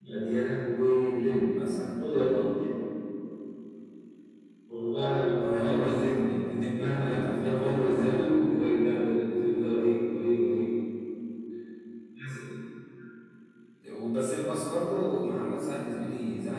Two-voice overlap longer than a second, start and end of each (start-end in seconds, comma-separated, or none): 6.7-8.2